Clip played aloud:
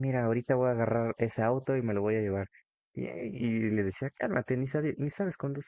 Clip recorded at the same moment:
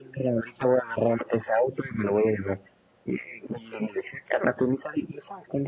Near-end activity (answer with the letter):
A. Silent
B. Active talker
A